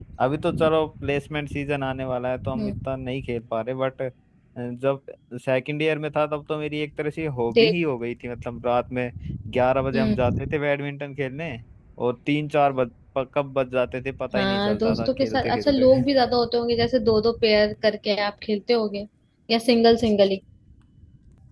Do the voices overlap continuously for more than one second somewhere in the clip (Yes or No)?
Yes